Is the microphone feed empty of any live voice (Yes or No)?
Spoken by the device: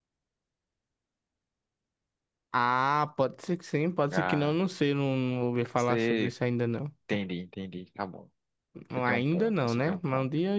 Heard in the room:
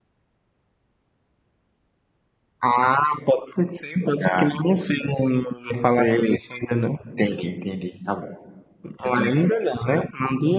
Yes